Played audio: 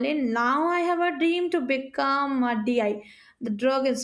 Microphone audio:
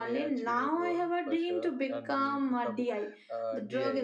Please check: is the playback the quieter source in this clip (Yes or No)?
No